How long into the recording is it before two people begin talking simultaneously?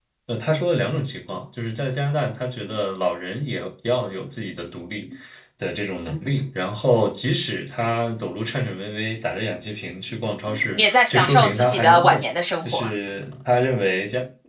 10.8 s

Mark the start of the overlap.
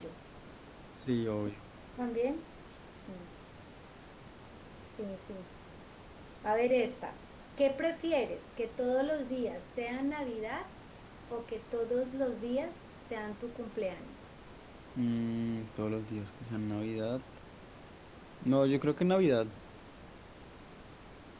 none

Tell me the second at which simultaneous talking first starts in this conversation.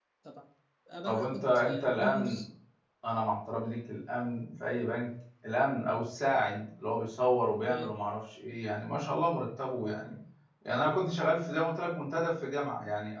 1.1 s

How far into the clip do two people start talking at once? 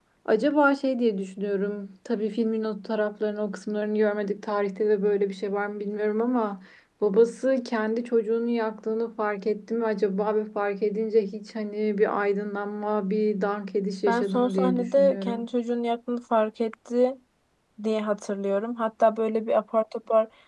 14.1 s

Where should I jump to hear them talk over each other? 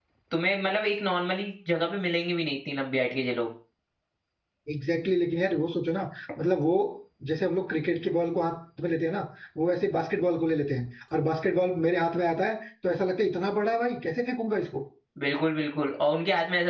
none

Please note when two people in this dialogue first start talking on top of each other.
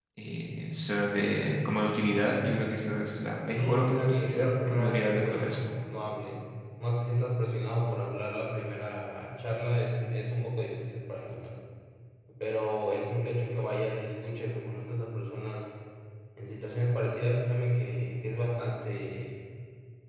3.5 s

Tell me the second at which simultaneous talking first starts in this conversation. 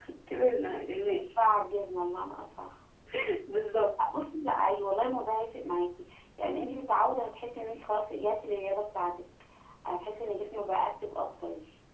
none

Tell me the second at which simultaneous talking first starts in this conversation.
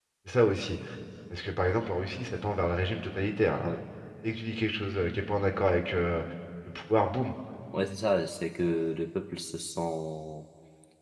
none

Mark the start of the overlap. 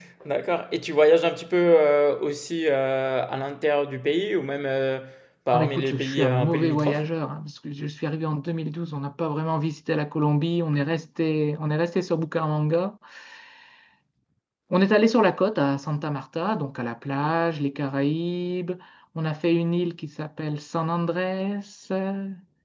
5.5 s

